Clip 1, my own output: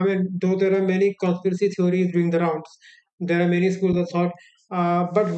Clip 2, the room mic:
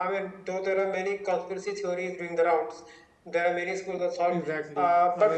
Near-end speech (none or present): present